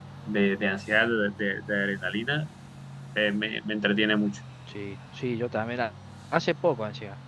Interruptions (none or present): none